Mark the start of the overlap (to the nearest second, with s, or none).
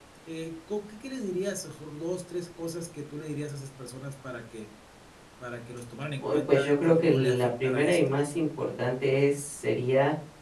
6 s